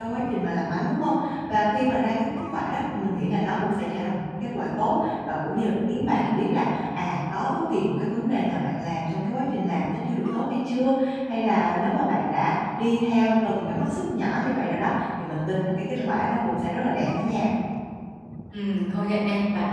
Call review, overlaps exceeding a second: none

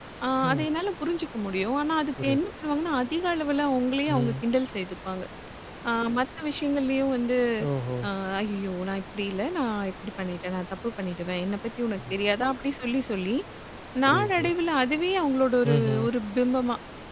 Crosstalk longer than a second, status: none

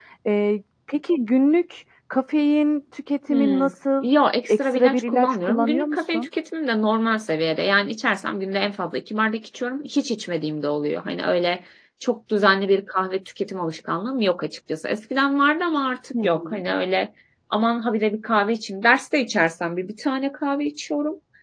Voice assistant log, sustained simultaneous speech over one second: present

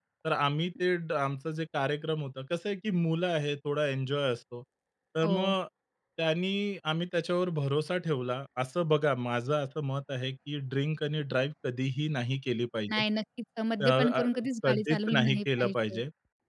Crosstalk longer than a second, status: present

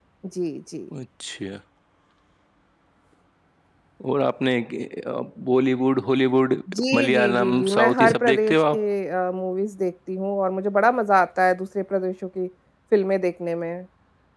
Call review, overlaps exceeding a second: present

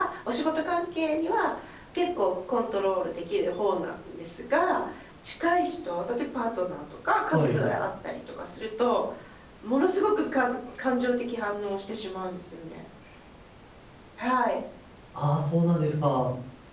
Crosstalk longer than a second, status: none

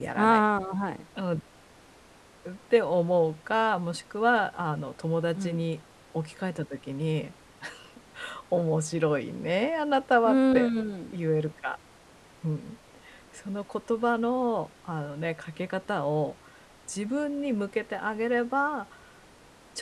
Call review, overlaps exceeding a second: none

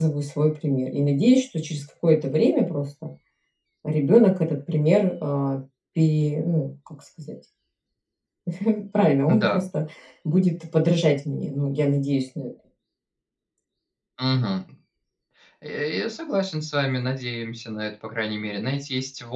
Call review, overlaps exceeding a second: none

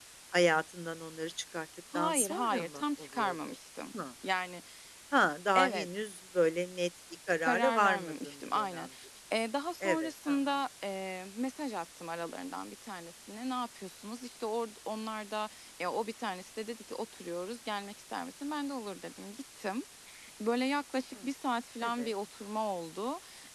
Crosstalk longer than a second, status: present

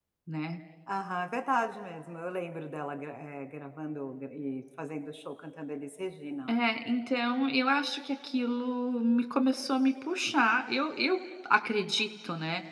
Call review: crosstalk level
none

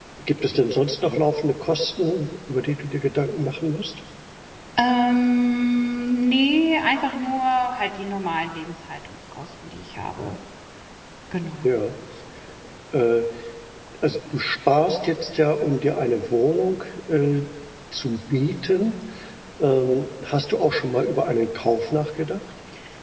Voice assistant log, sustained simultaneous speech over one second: none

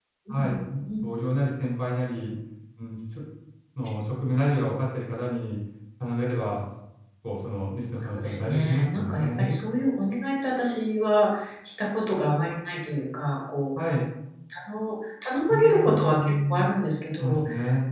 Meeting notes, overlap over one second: present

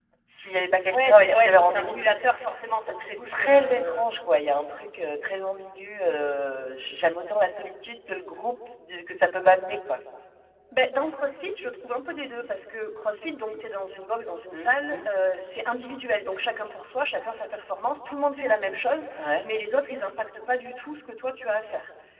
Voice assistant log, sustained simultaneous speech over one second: present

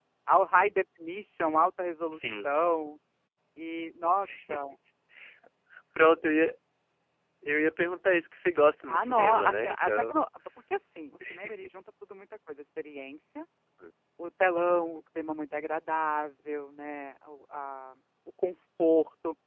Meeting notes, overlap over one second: present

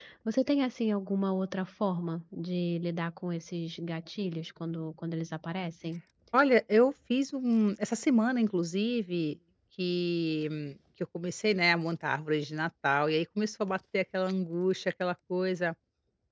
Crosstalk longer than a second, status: none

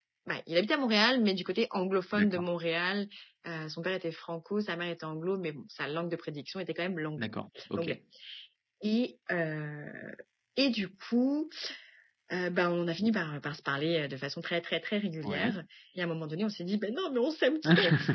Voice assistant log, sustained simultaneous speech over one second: none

